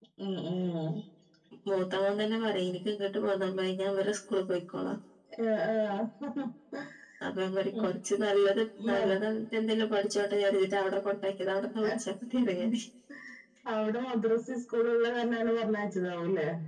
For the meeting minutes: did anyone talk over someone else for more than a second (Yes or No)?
No